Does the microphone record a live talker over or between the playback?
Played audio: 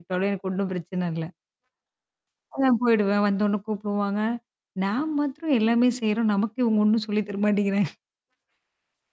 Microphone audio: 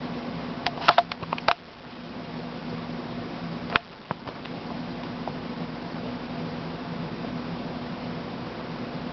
No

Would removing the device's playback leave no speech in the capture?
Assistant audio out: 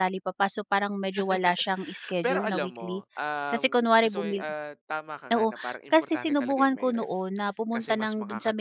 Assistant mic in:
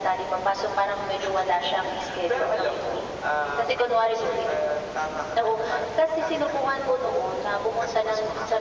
Yes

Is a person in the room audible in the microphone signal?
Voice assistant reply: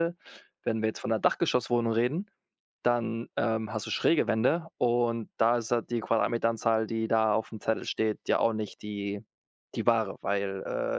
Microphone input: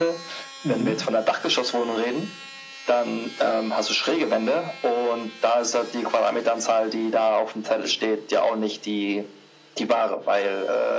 Yes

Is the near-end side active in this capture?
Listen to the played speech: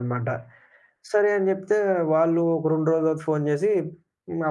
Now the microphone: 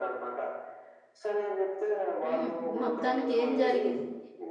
Yes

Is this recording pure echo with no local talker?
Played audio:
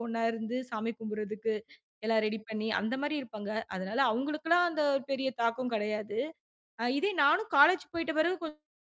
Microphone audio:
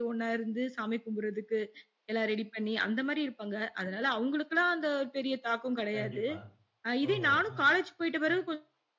No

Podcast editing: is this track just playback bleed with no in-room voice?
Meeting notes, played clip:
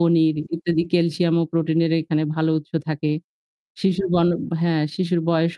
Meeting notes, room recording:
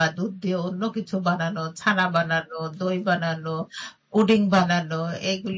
No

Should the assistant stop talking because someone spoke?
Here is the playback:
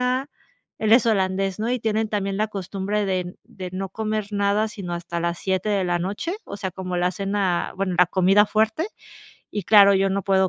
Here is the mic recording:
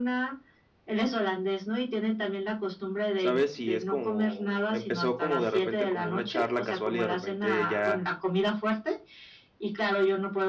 Yes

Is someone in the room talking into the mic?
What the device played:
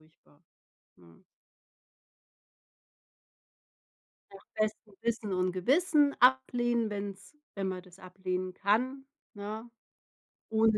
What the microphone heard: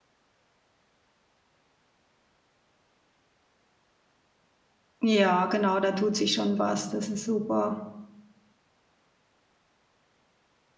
Yes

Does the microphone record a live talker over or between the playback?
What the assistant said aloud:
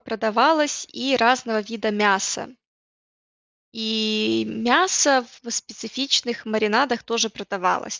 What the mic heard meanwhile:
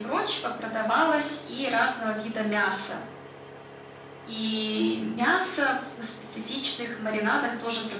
No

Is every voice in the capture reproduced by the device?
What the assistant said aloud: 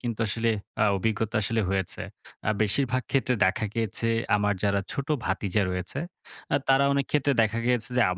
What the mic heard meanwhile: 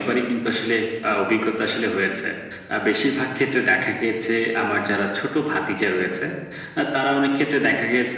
Yes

